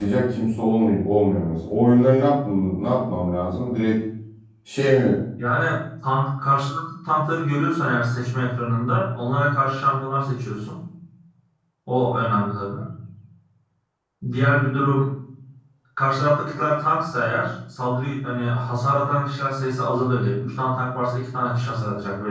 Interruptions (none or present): none